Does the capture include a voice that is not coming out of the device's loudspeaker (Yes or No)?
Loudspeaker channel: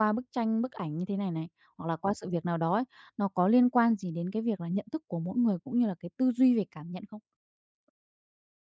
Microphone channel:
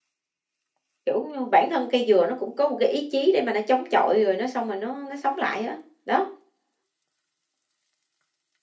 Yes